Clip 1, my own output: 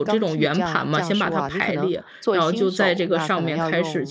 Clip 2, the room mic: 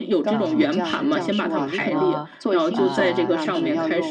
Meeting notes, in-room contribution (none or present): present